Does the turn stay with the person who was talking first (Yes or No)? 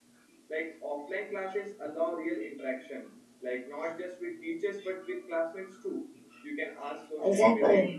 Yes